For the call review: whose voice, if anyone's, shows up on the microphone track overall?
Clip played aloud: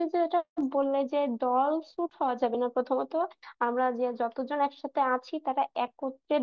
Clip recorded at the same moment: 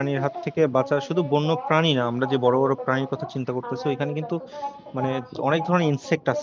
both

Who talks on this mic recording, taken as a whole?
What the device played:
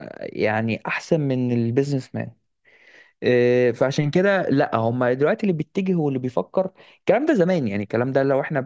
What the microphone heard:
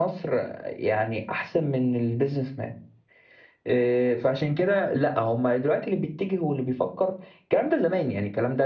echo only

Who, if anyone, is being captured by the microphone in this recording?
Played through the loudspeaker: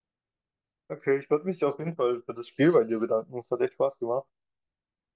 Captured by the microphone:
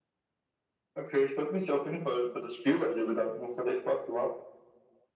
echo only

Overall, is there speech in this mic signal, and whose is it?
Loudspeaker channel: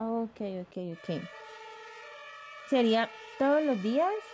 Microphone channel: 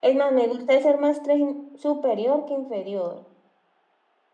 user only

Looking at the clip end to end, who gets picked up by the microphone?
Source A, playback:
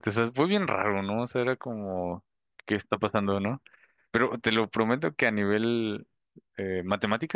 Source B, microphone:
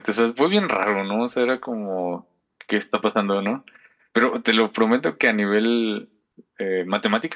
echo only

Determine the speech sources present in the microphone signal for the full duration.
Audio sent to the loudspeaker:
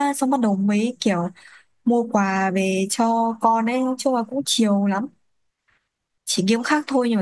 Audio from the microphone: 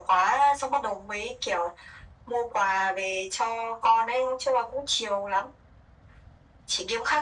echo only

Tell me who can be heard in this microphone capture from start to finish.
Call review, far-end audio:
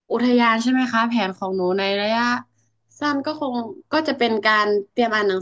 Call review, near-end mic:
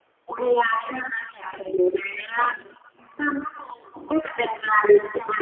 echo only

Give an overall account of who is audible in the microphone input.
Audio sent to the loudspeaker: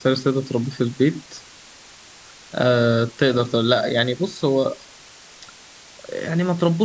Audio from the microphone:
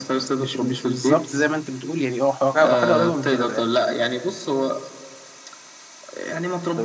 both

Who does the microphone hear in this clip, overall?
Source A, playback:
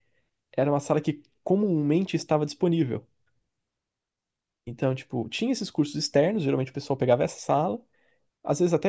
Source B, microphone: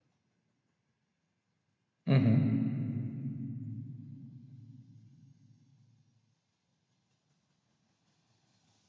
user only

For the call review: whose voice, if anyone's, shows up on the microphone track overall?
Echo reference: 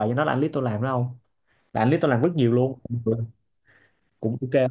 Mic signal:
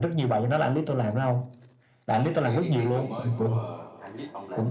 both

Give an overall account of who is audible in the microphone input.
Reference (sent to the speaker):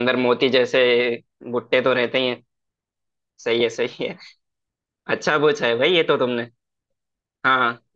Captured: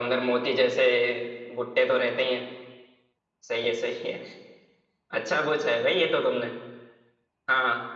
echo only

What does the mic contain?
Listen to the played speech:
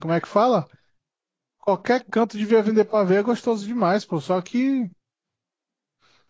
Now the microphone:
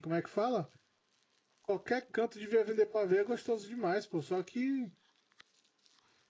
echo only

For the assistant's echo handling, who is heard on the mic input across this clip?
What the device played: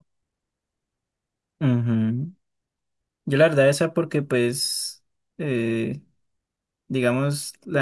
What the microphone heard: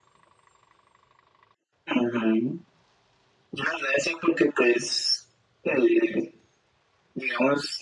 echo only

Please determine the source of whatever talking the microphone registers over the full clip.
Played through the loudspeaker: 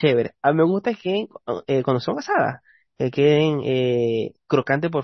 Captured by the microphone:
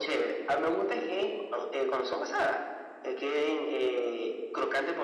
echo only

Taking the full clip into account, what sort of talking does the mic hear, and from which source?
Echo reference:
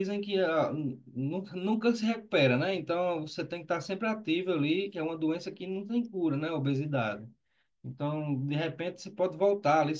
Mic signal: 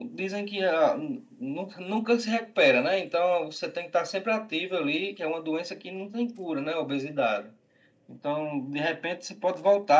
echo only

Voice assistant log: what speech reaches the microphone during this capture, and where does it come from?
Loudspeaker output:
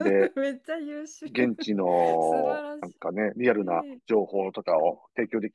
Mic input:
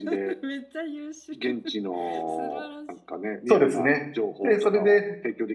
both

